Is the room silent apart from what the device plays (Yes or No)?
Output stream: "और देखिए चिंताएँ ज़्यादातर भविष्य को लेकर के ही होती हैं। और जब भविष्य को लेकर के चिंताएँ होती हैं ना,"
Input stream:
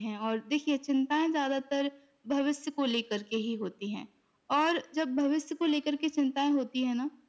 Yes